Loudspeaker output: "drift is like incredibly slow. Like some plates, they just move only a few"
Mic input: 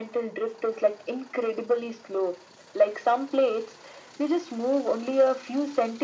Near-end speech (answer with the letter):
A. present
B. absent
B